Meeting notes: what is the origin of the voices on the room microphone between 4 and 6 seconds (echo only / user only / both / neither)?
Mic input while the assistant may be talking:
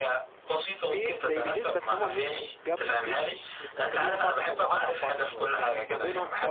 both